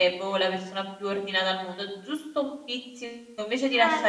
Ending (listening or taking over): listening